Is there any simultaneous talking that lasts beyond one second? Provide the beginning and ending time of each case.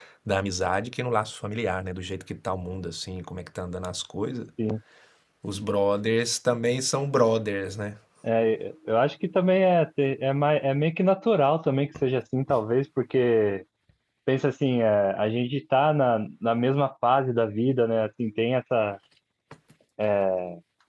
none

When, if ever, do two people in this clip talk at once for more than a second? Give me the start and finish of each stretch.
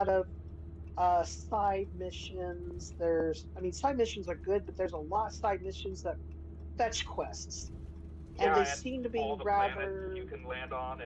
8.4-10.3

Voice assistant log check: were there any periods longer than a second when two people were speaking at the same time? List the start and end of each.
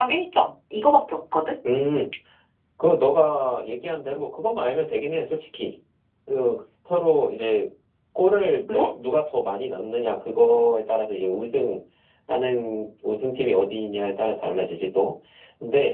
none

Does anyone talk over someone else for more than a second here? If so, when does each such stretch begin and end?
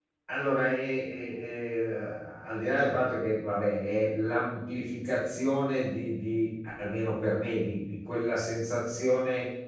none

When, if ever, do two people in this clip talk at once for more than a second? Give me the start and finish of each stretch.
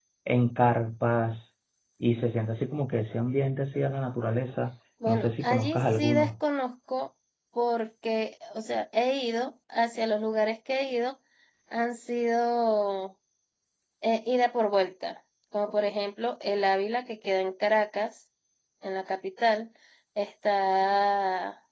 5.1-6.3

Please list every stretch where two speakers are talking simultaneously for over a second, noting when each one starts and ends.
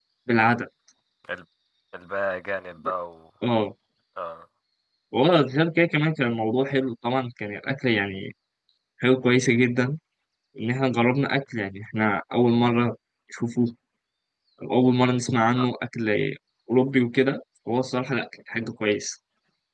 none

